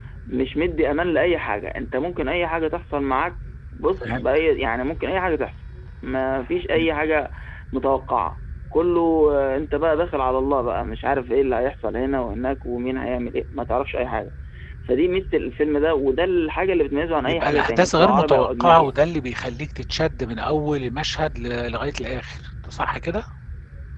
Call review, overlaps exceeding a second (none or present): present